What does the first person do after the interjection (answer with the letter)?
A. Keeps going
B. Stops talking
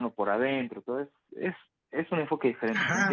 B